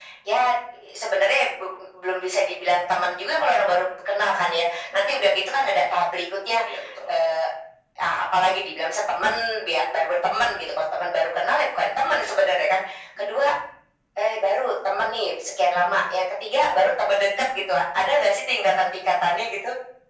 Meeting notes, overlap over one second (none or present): none